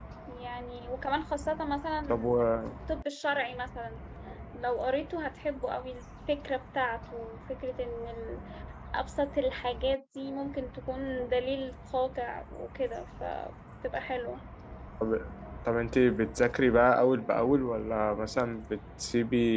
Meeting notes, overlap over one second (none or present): none